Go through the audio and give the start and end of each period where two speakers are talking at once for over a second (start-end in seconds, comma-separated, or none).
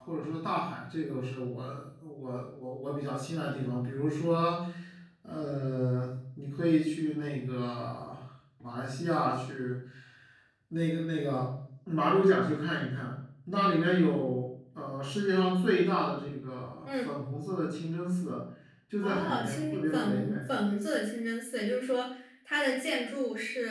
19.0-20.3